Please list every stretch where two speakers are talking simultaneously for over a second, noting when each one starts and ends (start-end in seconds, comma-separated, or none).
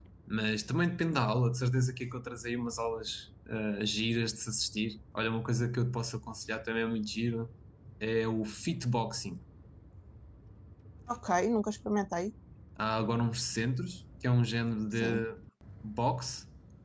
none